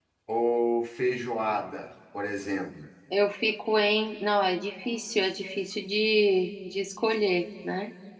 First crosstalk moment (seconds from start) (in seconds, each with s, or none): none